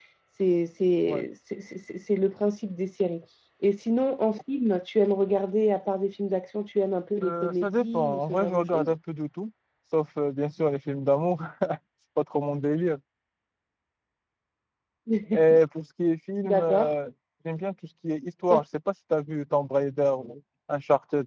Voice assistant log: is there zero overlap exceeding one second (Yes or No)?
No